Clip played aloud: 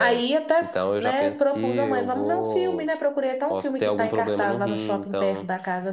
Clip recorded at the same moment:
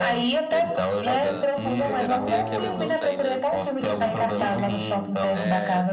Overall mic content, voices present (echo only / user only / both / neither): both